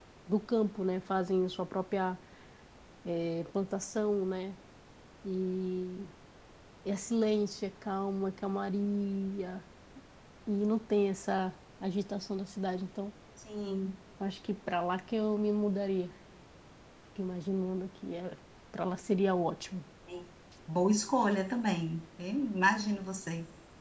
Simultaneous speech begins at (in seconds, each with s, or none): none